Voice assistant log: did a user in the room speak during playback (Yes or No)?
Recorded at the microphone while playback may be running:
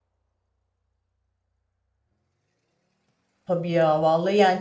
Yes